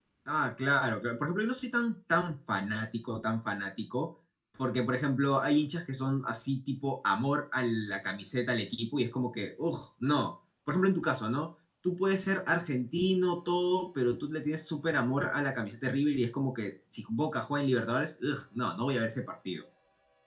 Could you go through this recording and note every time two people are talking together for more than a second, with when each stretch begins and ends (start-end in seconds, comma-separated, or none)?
none